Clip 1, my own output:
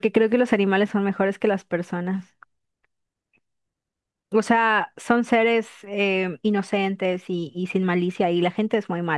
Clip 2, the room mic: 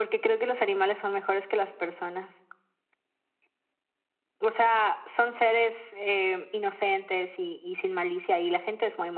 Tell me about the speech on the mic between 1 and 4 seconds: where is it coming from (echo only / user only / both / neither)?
echo only